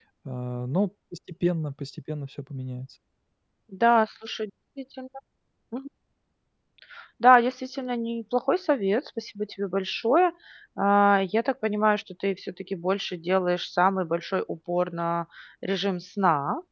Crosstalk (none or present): none